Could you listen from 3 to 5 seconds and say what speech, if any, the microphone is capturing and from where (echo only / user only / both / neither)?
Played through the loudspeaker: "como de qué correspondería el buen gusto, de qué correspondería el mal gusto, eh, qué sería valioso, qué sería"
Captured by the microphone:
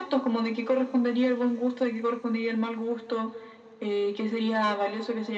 echo only